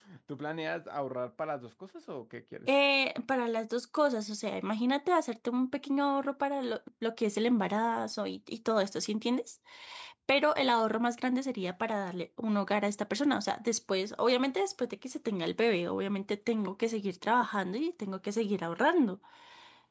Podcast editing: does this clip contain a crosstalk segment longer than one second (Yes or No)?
No